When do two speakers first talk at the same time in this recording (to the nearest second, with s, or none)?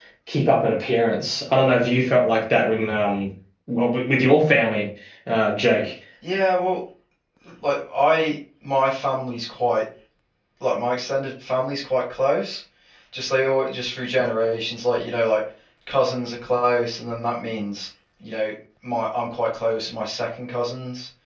none